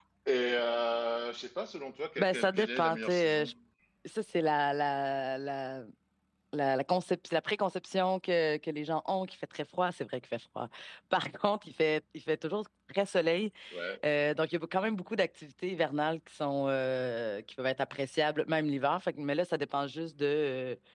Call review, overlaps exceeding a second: present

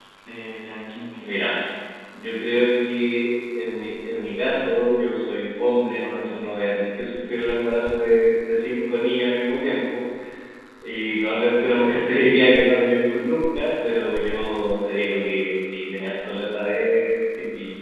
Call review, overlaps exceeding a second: none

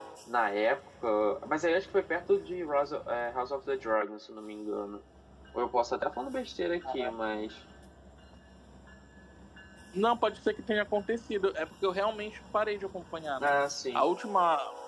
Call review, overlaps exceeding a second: none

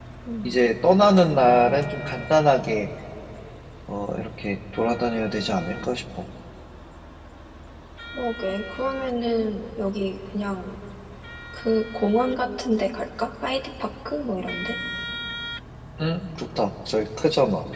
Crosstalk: none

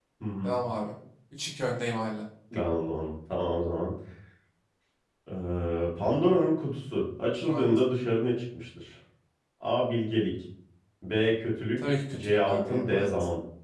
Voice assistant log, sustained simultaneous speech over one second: present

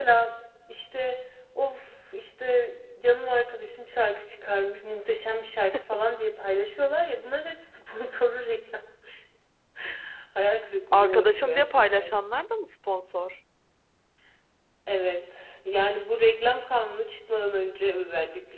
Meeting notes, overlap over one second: present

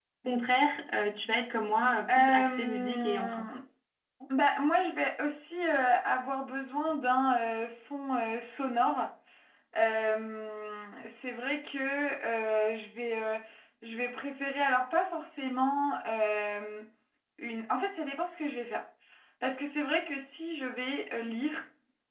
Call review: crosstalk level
present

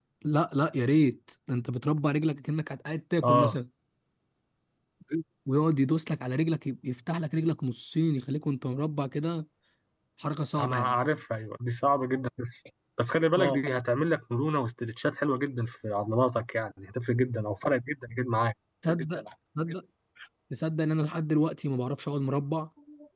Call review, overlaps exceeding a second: none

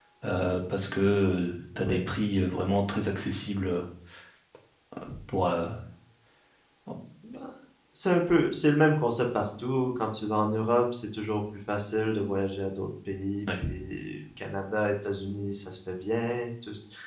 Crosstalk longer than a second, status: none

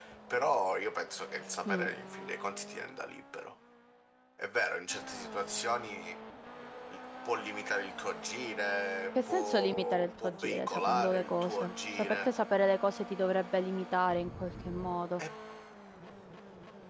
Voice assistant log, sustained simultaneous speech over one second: present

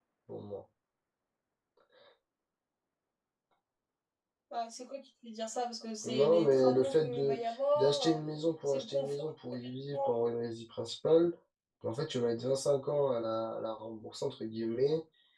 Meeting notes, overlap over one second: present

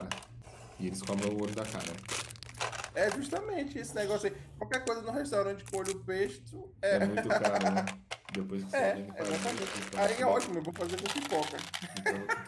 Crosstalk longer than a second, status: present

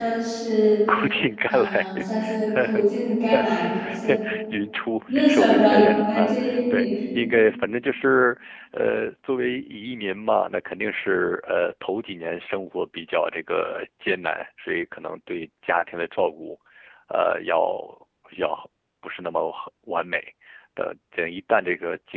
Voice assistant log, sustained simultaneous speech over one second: present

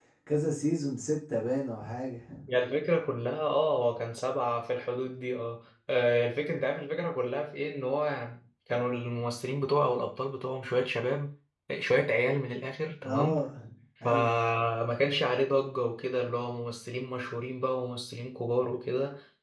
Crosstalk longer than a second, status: none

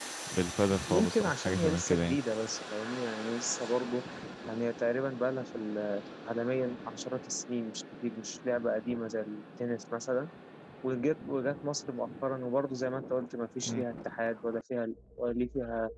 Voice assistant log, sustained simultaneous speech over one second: present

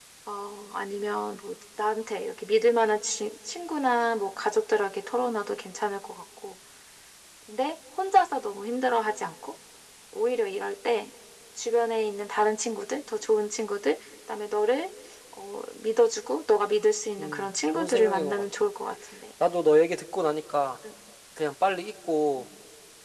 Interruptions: present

